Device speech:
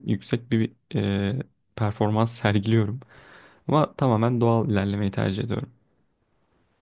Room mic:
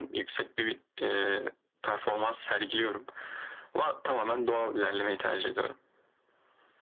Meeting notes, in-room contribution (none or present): none